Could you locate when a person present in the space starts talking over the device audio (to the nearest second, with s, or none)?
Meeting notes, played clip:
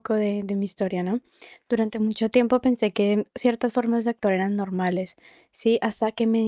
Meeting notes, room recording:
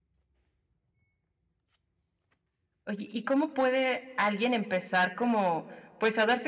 3 s